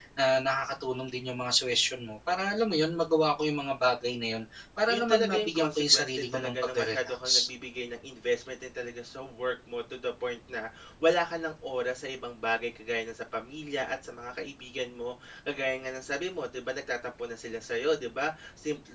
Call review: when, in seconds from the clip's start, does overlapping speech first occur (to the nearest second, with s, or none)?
5 s